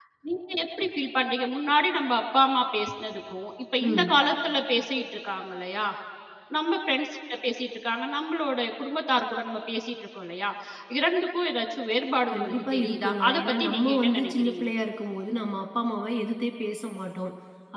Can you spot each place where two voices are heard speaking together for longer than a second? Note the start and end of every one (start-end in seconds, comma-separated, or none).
12.3-14.6